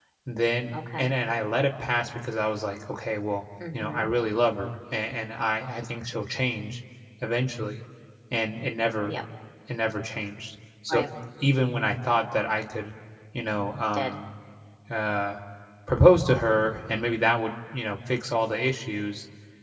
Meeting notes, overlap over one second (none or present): none